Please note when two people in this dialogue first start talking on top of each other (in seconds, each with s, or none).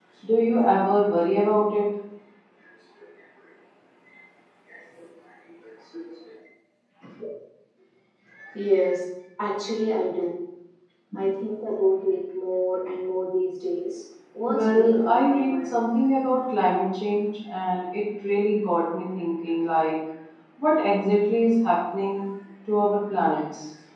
14.5 s